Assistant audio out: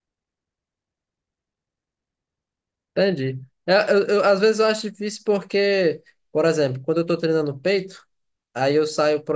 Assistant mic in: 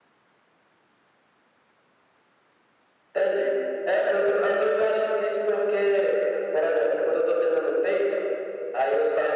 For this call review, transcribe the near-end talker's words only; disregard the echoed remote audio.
none

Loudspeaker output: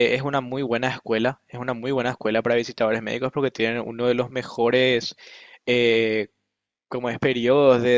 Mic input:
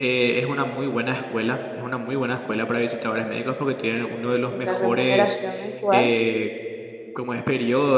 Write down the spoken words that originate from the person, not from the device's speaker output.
eh, la remuneración mensual,

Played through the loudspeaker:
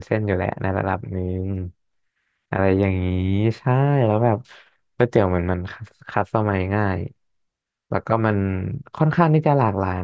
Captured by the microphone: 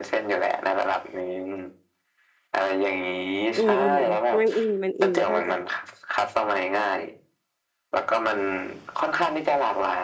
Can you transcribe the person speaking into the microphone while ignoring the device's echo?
อืมอืมอืมมันอิ่มมันอิ่มเข้าใจ

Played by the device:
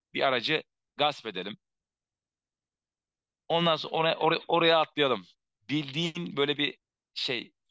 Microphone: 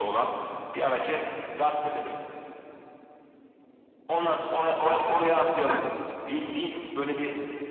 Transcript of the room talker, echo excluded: e, hı,

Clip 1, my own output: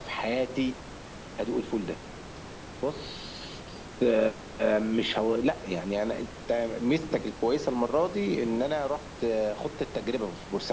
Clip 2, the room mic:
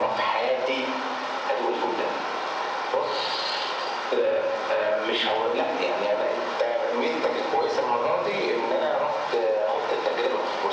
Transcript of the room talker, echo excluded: none

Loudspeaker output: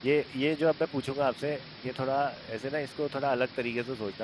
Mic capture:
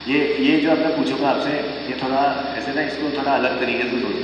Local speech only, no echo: none

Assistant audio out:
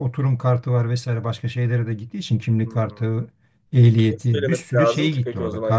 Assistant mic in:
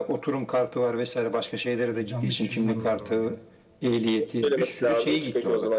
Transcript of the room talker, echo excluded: bir canlı kişi bulmam gerekiyor yani.

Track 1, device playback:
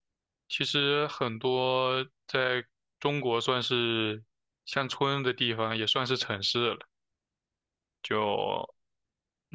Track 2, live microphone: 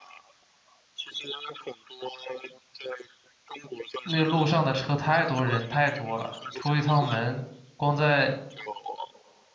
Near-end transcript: 那个路上的车太多，人太多了，出一趟门，光在

